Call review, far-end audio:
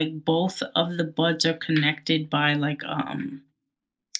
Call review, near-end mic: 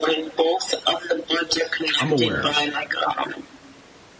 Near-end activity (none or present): present